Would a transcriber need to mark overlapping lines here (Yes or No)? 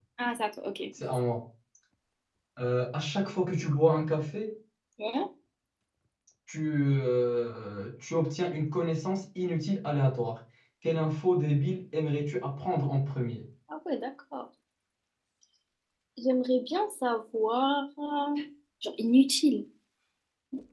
No